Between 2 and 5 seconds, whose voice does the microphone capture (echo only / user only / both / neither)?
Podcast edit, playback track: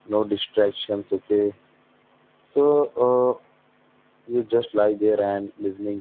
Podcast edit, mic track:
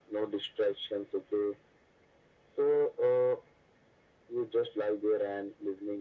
echo only